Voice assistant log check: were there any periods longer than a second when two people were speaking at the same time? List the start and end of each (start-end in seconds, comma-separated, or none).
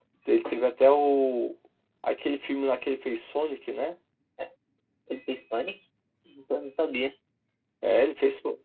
none